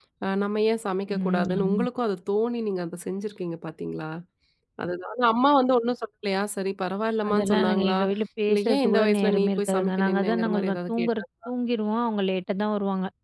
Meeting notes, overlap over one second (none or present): present